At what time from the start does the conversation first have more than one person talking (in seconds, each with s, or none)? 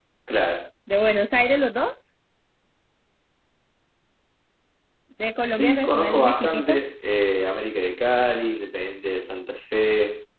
5.5 s